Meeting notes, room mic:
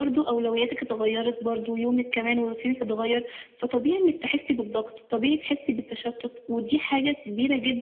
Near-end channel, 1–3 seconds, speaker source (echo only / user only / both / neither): echo only